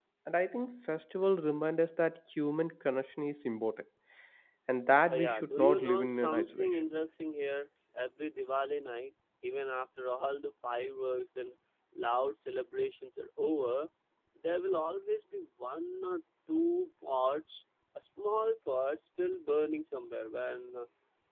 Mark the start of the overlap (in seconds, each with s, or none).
5.1 s